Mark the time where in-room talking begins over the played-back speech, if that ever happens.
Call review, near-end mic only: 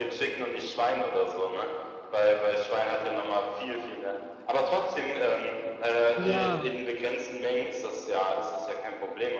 6.2 s

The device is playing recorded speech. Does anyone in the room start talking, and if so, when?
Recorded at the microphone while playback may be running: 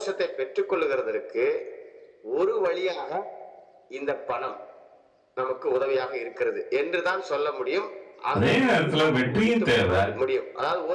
8.4 s

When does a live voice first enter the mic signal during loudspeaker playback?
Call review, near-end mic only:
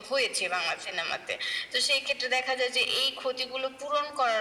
none

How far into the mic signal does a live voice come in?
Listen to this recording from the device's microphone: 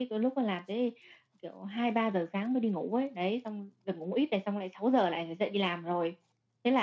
none

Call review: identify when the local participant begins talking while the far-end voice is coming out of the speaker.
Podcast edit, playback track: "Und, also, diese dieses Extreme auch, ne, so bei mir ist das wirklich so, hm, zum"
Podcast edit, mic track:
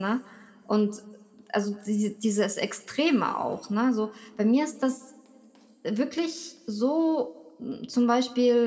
none

